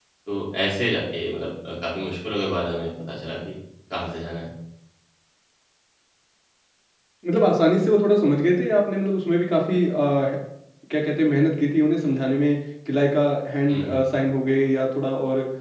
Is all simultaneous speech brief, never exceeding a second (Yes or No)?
Yes